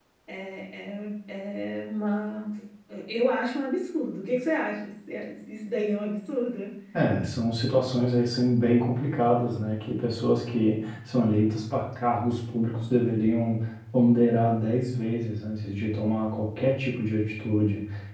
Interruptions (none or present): none